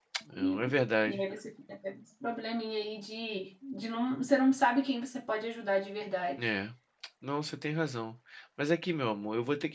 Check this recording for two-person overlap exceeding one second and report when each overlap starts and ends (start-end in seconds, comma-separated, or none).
none